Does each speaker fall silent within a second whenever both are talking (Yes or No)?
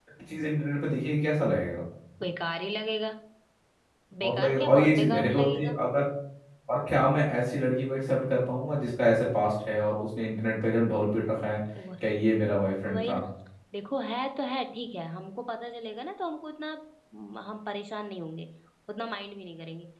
No